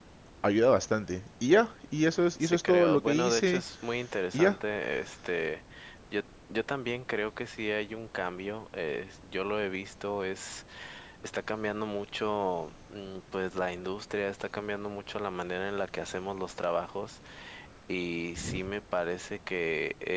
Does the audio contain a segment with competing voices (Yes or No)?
Yes